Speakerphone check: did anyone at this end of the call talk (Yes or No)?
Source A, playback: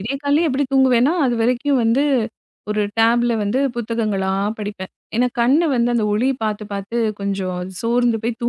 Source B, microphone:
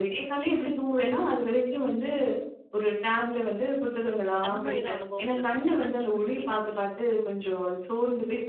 Yes